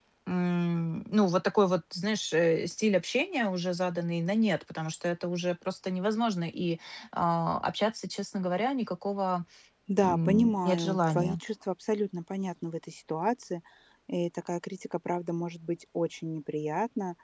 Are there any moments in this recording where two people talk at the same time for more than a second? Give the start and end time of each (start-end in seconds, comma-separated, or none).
10.0-11.4